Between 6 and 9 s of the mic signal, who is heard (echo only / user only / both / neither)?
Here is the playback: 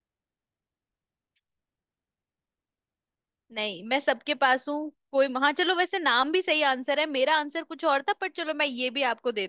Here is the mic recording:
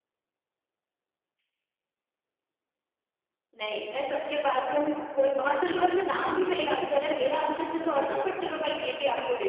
echo only